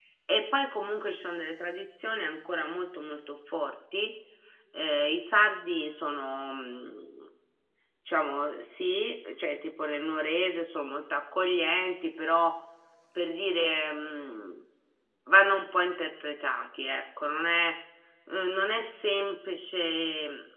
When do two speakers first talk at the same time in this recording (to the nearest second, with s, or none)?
none